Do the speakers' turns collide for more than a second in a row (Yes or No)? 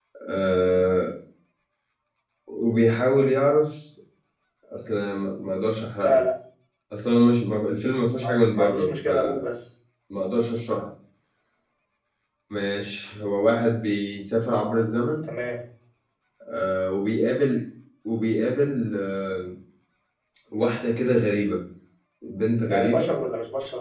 Yes